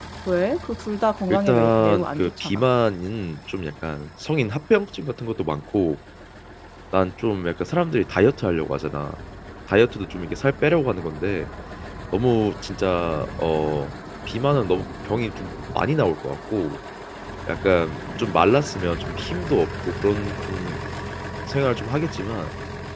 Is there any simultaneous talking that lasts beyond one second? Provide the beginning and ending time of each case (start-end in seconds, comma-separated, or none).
1.3-2.6